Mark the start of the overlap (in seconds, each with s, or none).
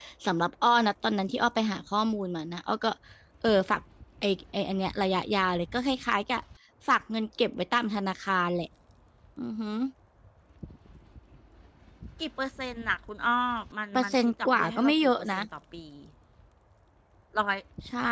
13.9 s